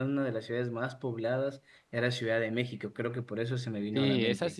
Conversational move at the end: taking over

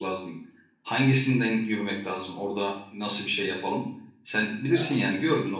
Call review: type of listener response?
listening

